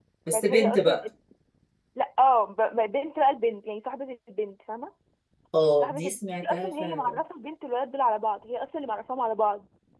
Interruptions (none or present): present